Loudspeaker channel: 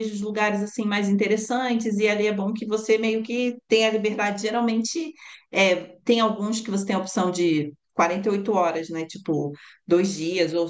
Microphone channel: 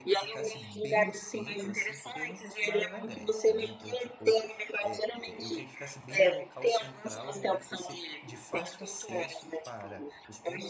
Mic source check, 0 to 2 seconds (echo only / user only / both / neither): both